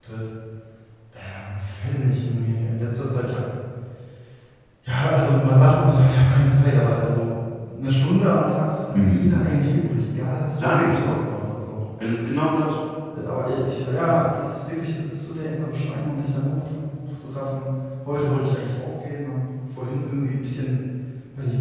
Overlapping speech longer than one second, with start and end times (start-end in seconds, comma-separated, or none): none